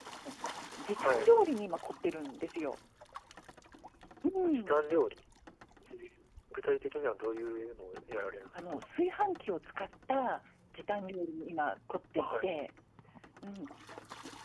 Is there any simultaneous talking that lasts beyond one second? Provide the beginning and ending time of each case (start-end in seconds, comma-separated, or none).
none